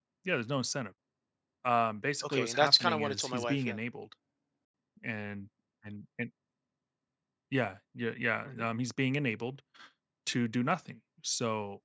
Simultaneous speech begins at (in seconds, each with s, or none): 2.2 s